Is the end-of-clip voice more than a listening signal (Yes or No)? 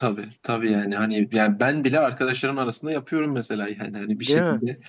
No